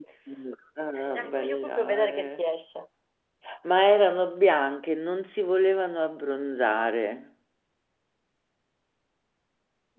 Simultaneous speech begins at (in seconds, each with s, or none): 1.1 s